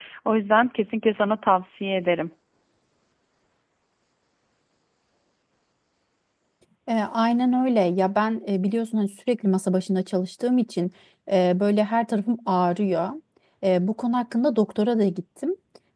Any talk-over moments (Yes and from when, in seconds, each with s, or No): No